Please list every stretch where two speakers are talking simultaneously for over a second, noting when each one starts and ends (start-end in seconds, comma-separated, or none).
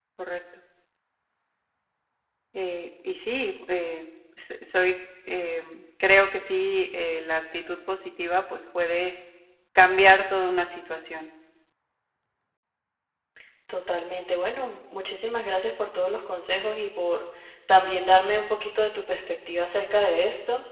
none